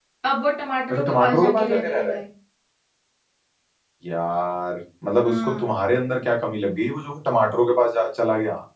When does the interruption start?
0.9 s

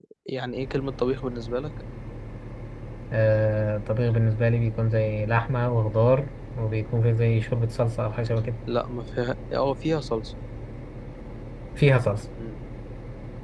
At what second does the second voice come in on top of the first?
none

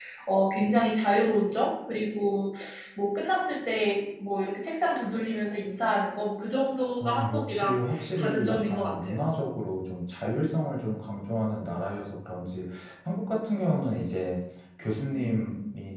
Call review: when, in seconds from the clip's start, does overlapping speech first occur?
7.0 s

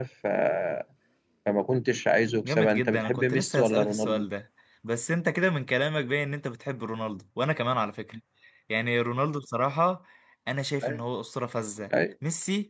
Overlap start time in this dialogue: 2.4 s

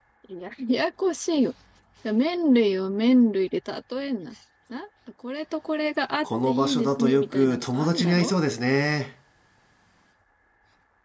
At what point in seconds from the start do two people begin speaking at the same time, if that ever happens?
6.2 s

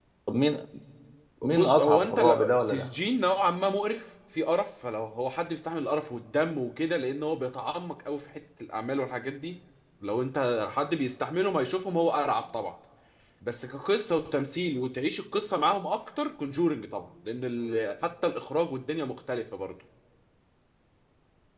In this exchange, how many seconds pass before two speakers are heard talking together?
1.4 s

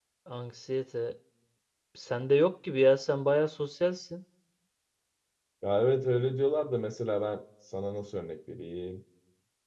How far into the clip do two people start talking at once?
none

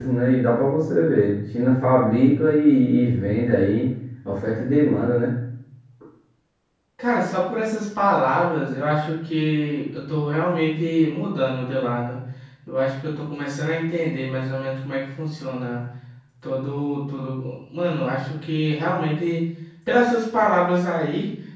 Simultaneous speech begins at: none

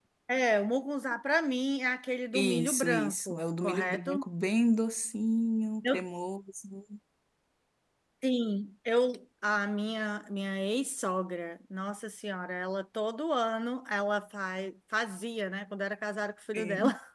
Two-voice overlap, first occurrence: 2.3 s

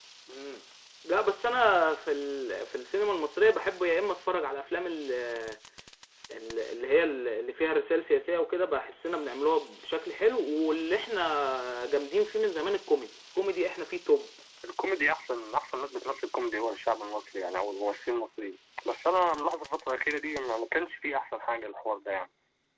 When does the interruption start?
none

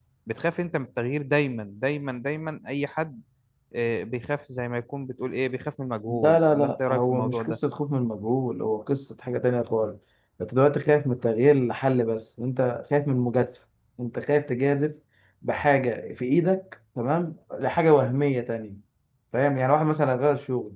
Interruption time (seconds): 6.1 s

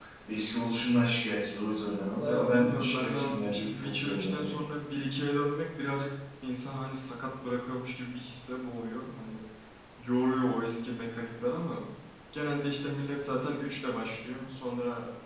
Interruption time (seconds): 2.2 s

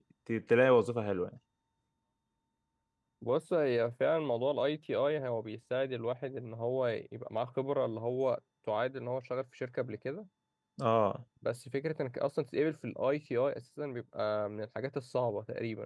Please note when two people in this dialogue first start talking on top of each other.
none

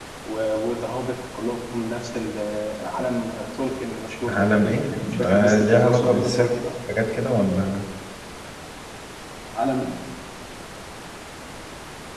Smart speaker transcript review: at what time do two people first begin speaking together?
4.2 s

